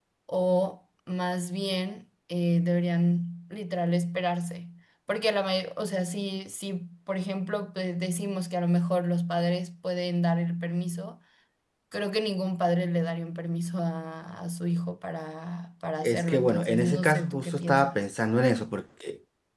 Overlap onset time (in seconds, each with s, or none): 16.0 s